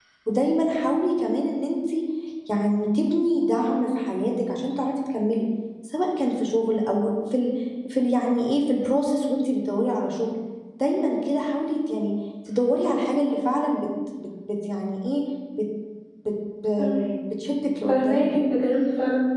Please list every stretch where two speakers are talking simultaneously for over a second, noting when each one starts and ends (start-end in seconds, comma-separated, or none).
none